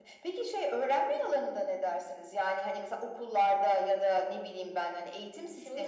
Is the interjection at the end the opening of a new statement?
Yes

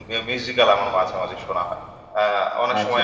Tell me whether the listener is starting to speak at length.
No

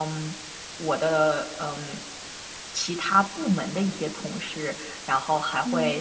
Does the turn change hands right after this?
No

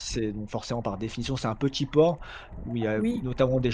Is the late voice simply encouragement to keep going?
Yes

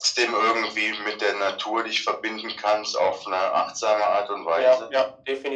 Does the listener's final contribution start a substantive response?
Yes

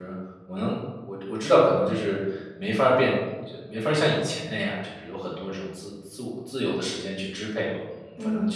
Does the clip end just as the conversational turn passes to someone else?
No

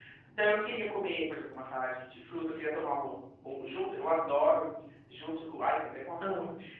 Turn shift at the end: No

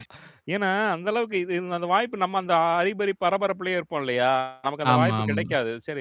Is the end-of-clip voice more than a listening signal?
No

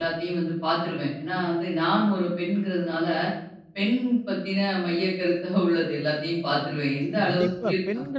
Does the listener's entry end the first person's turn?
Yes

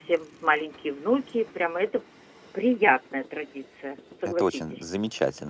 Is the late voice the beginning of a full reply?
Yes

